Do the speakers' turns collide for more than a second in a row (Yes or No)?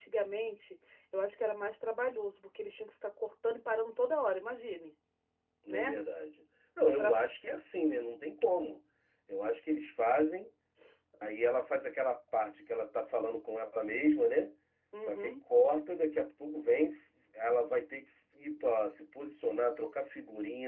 No